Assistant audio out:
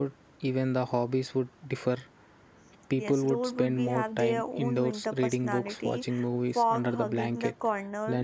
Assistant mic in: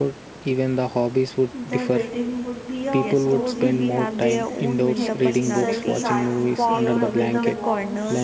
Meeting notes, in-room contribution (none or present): present